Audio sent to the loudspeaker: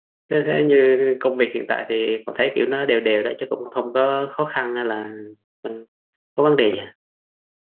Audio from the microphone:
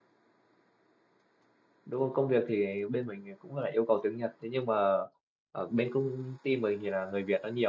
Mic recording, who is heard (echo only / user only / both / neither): user only